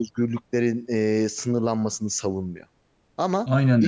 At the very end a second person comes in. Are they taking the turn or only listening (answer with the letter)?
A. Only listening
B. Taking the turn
A